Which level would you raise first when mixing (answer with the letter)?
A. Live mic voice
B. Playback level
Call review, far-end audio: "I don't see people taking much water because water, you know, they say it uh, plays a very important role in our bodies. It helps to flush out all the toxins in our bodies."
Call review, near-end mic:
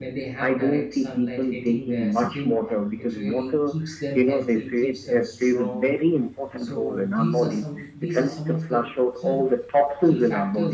A